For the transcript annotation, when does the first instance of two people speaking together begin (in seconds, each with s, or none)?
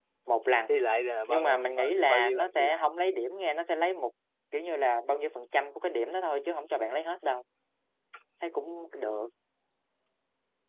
1.3 s